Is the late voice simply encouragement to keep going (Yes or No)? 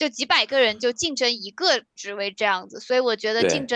Yes